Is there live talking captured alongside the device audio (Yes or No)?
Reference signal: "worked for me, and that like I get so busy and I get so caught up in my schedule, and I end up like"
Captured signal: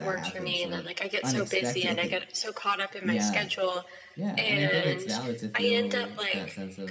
Yes